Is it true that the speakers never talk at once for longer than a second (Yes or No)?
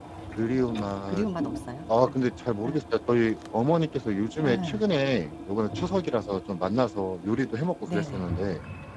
Yes